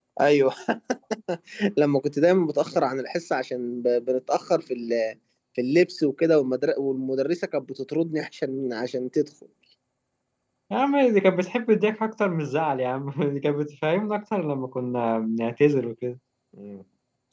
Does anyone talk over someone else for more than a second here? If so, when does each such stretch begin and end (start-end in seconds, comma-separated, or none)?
none